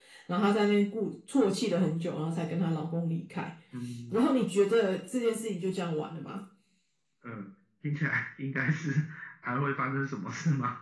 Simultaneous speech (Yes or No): No